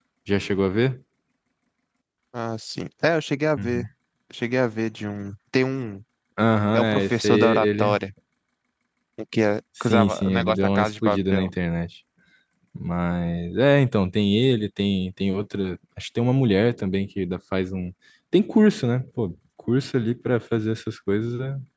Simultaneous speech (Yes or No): Yes